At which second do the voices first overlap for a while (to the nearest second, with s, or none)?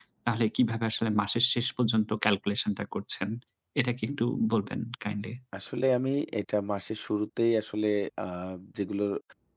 none